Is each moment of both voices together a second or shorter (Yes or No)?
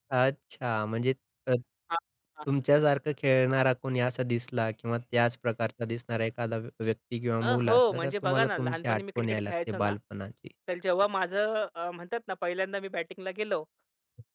No